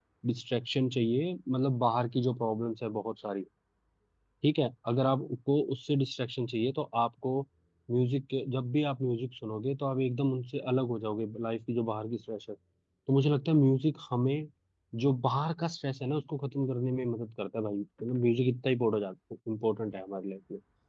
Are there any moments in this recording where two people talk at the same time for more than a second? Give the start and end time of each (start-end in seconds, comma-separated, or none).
none